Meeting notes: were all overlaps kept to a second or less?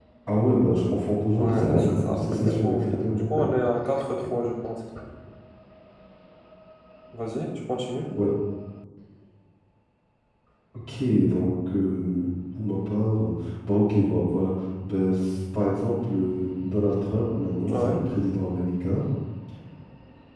No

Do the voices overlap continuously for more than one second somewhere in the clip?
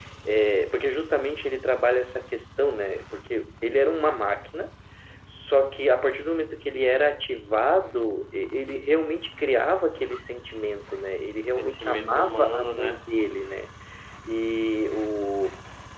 Yes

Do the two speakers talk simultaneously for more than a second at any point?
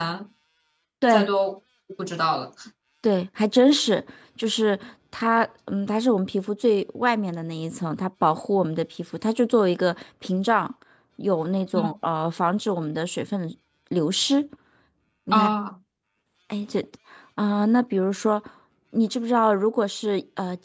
No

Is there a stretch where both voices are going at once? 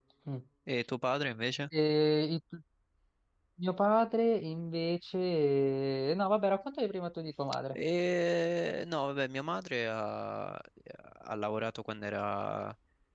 No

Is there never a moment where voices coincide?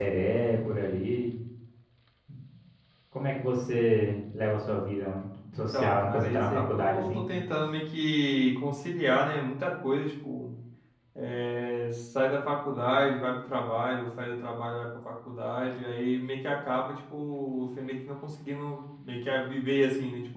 No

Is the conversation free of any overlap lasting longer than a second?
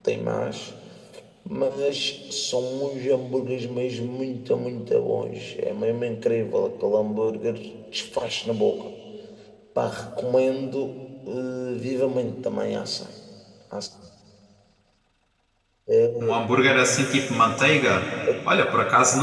Yes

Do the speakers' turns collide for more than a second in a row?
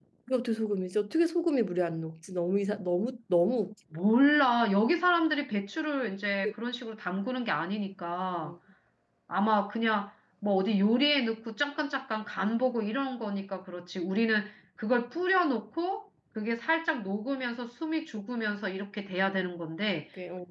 No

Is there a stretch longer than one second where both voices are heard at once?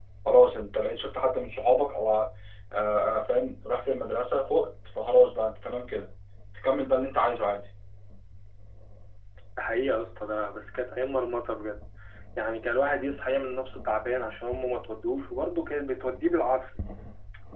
No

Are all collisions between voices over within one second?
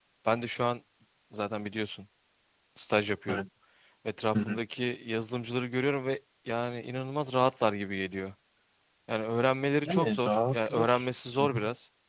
No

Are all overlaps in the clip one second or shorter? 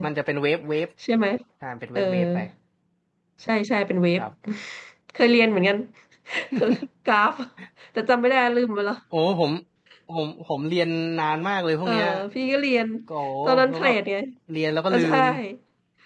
Yes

